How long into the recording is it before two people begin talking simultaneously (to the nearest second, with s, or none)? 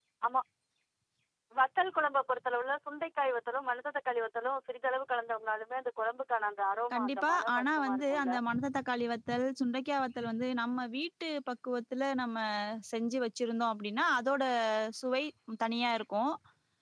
7 s